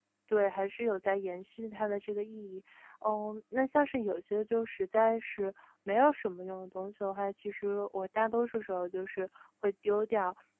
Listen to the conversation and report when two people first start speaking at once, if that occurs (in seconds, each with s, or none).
none